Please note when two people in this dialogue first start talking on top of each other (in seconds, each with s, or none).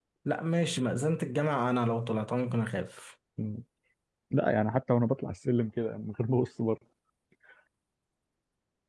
none